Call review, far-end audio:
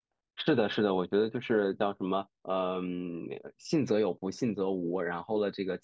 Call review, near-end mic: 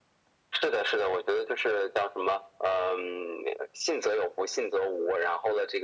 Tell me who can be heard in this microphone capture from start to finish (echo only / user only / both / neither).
echo only